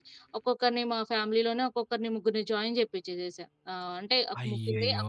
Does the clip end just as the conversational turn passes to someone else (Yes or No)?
No